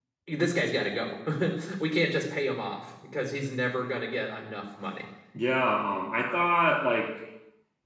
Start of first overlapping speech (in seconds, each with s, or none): none